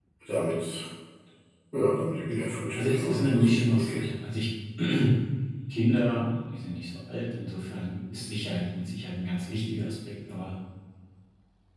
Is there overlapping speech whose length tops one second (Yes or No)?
Yes